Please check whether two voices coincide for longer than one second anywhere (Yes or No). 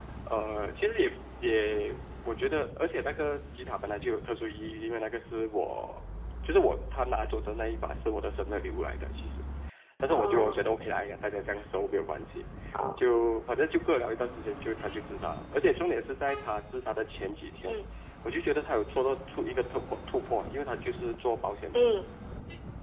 No